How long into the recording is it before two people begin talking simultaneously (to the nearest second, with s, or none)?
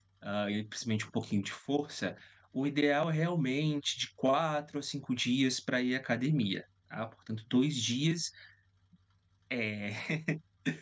none